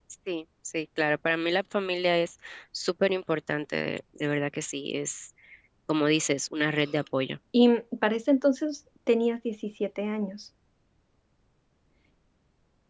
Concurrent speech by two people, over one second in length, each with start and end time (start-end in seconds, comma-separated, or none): none